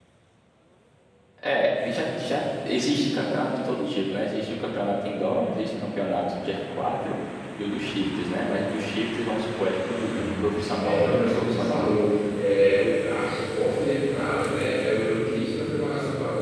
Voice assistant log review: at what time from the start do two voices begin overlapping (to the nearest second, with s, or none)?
10 s